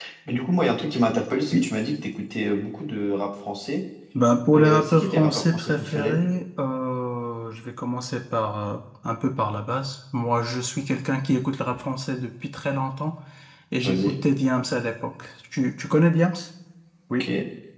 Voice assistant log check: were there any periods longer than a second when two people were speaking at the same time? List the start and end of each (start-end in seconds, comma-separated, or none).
4.5-6.2